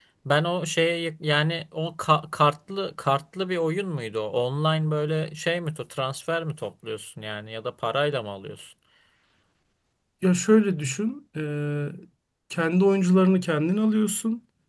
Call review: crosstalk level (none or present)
none